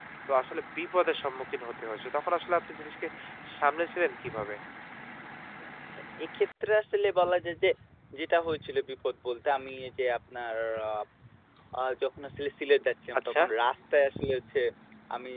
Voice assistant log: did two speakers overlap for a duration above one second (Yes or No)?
No